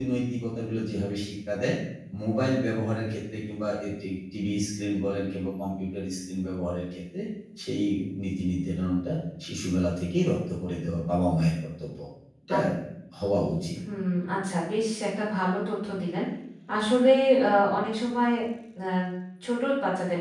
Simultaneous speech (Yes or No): No